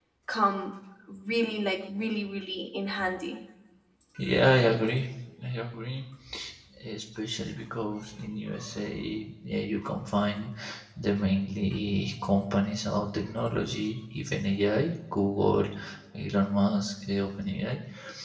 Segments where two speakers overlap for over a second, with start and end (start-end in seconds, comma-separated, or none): none